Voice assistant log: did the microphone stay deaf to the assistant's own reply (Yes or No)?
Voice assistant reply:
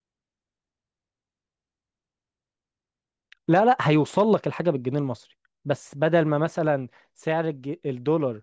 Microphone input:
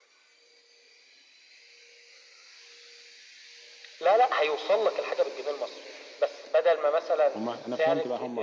No